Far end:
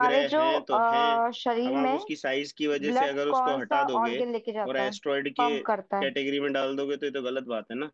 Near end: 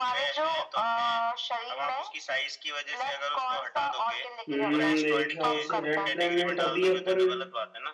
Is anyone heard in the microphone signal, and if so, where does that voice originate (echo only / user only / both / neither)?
both